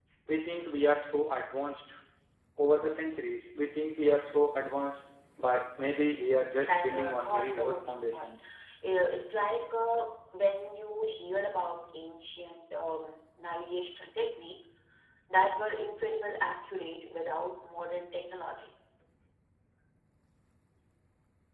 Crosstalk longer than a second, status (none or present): present